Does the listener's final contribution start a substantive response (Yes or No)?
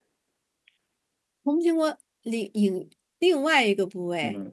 Yes